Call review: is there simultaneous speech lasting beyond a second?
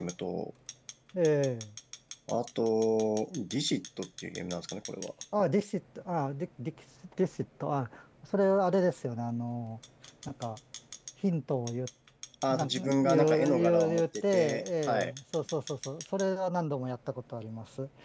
Yes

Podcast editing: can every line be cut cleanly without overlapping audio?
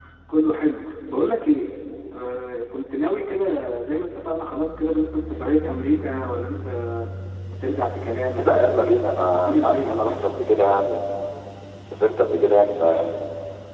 No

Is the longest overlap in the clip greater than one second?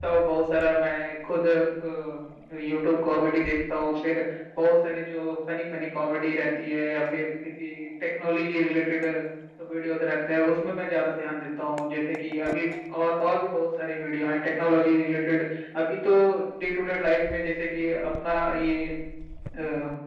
No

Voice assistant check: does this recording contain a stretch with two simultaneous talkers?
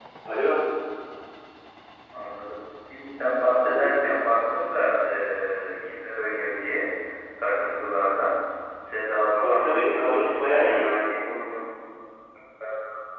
Yes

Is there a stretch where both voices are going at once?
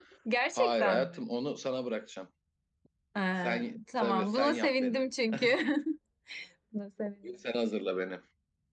Yes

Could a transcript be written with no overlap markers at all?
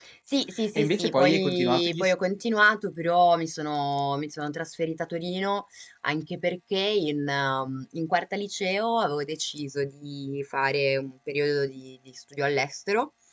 No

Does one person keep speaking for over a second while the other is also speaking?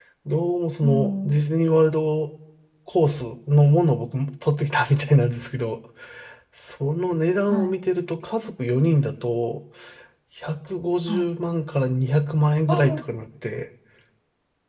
No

